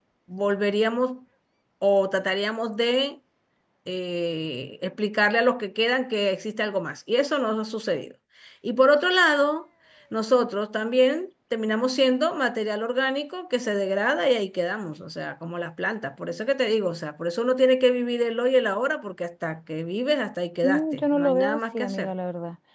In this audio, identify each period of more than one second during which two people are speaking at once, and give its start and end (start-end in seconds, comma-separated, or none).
20.6-22.1